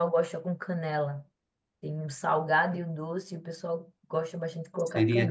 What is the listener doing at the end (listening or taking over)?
taking over